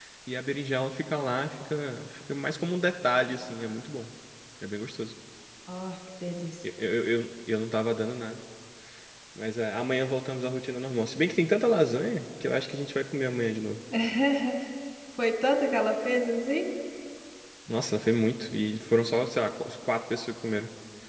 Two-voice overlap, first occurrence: none

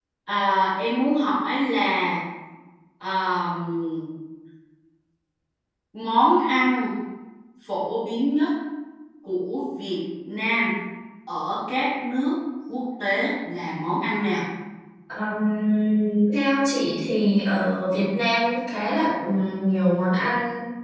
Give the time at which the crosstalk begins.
none

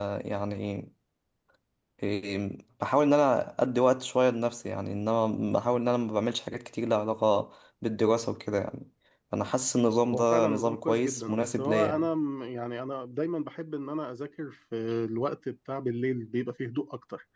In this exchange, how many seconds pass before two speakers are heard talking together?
10 s

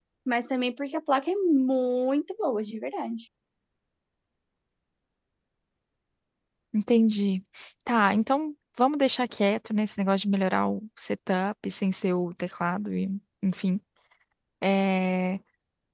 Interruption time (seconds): none

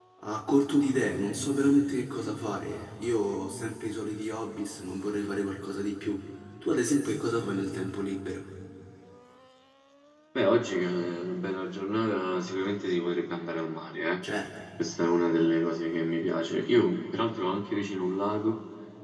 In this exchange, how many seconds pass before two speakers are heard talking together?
none

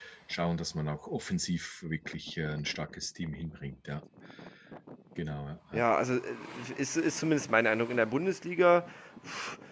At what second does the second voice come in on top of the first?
none

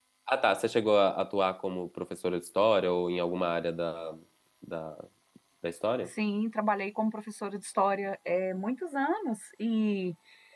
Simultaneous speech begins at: none

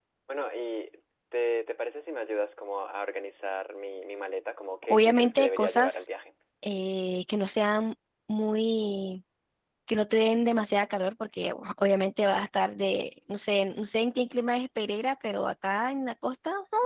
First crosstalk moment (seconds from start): 5 s

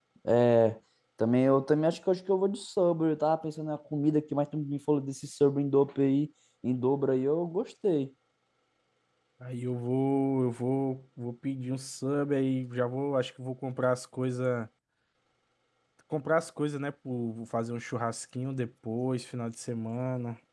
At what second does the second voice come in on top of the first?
none

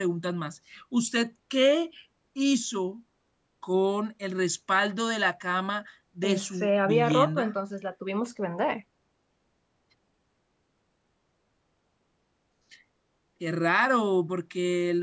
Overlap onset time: 6 s

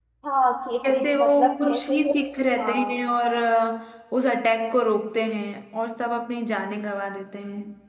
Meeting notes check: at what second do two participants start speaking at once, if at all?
1 s

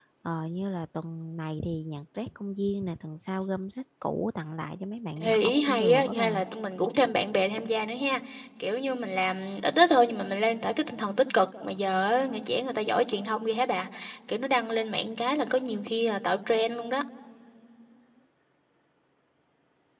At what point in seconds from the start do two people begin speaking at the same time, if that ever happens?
5 s

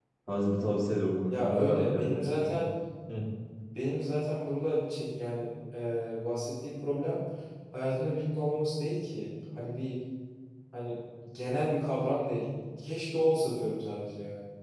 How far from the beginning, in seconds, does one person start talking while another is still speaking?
1 s

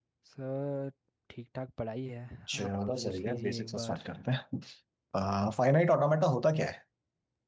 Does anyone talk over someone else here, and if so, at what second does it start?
3 s

